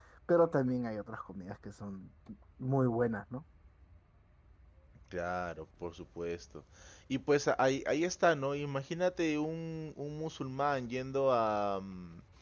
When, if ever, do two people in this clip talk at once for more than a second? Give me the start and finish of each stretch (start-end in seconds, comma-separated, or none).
none